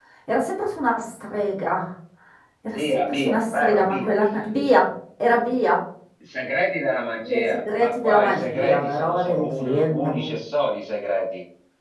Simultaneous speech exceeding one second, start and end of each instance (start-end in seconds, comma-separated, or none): 2.7-4.1, 7.2-10.3